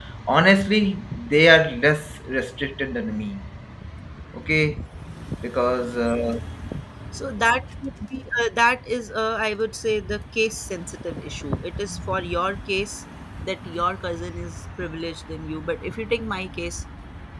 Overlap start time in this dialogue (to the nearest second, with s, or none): none